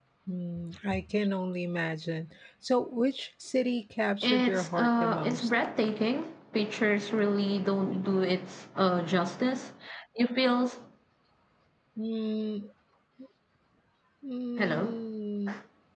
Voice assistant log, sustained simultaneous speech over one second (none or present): present